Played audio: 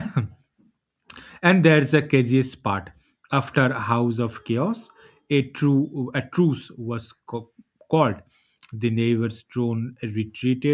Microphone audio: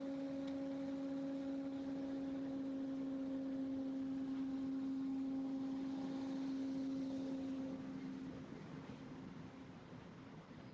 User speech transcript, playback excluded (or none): none